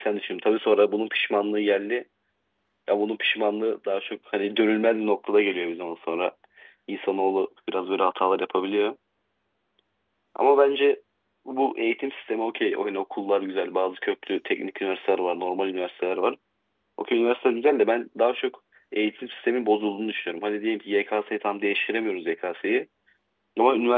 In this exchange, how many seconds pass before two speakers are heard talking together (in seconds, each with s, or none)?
none